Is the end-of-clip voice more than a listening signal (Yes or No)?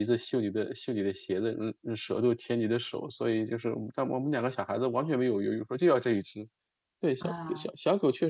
No